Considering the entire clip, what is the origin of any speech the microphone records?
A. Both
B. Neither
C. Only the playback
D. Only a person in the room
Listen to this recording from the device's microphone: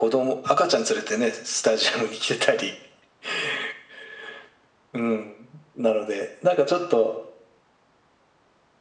C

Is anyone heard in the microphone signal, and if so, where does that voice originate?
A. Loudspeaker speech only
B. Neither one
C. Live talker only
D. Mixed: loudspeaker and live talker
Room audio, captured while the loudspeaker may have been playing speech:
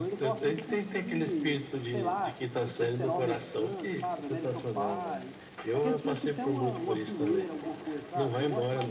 D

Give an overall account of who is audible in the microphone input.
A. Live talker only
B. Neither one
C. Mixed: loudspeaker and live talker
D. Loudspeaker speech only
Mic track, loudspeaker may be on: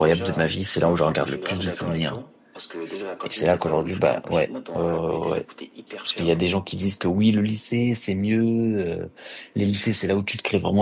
C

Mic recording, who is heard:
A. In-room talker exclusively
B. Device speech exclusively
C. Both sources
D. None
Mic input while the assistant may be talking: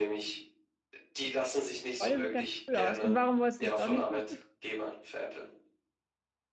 C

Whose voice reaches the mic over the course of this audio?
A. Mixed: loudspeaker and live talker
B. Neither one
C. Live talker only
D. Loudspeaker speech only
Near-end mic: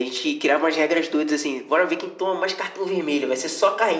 D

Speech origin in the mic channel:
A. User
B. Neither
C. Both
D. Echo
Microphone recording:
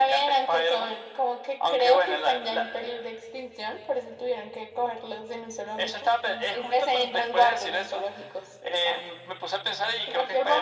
D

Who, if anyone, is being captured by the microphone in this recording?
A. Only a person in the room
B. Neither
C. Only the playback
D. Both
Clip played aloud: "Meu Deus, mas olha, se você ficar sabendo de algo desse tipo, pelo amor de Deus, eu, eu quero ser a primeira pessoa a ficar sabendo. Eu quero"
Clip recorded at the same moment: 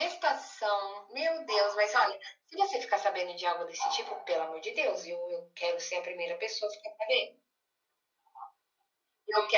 C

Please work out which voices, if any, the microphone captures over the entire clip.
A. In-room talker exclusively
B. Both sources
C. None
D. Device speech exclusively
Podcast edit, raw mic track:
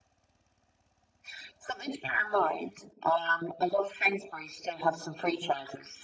D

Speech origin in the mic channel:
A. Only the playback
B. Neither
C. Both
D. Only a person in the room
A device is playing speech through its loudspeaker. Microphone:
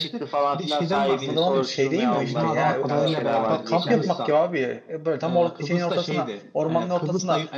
C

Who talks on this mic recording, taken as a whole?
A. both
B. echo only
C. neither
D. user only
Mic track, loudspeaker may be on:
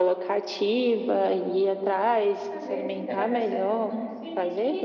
A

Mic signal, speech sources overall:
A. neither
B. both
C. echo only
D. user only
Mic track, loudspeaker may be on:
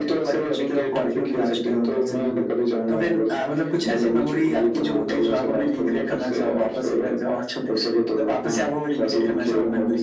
C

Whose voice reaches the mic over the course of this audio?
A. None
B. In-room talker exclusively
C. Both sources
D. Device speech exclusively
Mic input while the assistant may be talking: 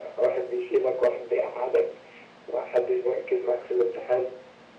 D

